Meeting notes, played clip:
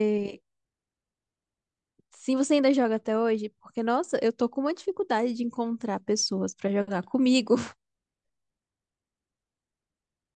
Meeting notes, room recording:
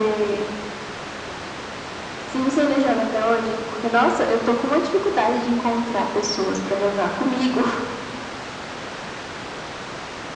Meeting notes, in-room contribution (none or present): none